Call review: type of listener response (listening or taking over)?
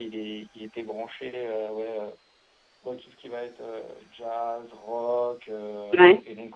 listening